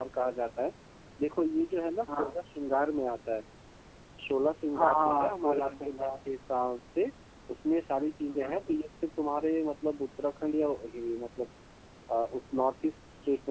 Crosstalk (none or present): present